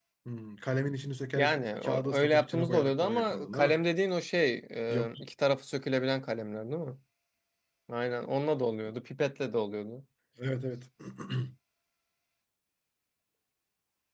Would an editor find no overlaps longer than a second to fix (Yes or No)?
No